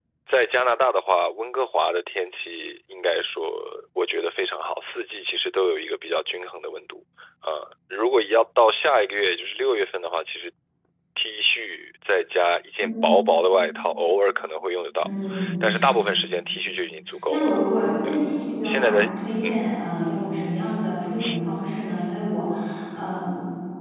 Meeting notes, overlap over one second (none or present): none